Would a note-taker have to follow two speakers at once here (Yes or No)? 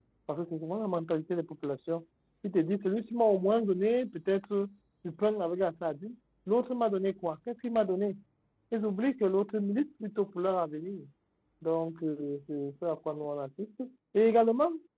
No